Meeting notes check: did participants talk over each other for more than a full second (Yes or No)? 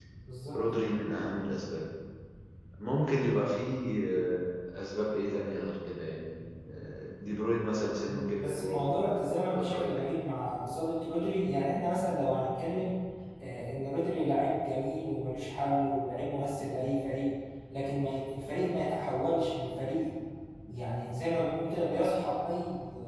Yes